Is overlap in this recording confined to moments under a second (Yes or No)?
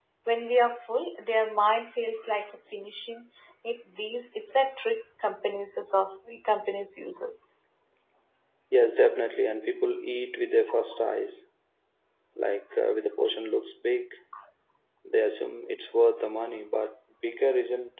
Yes